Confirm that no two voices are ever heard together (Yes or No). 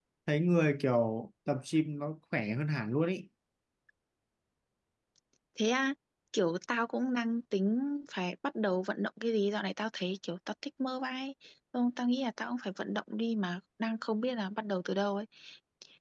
Yes